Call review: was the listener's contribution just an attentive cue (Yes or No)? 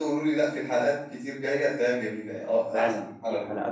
No